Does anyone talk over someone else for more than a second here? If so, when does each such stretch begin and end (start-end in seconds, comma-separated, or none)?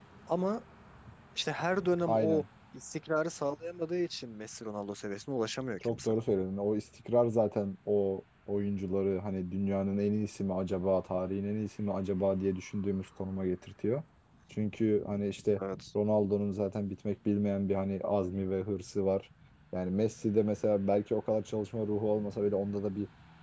none